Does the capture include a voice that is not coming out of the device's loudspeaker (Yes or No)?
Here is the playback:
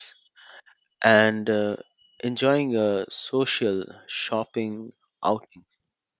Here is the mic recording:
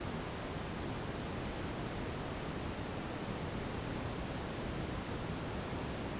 No